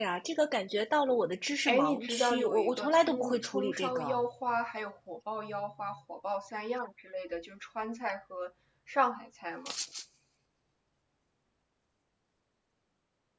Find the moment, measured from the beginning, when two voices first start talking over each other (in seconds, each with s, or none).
1.7 s